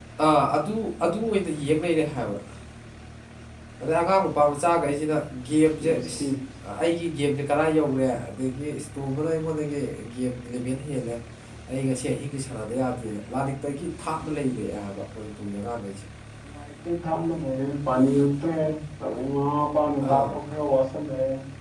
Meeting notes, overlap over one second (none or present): none